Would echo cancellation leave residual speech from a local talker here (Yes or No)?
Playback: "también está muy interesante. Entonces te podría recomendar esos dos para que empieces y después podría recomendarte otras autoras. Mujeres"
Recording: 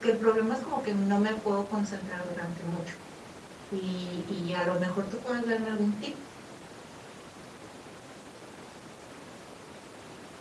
Yes